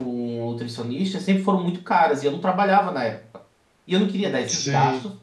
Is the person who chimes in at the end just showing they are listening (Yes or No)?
Yes